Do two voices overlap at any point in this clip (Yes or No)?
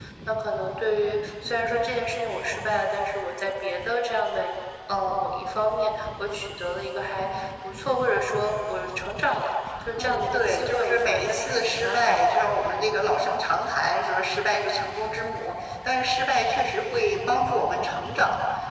Yes